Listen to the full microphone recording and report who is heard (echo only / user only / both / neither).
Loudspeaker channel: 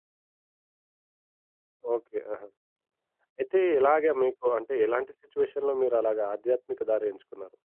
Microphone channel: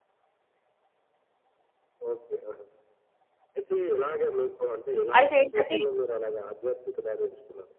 both